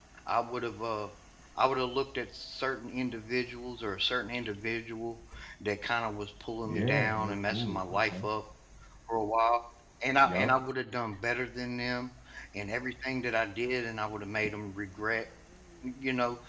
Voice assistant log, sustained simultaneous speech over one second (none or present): present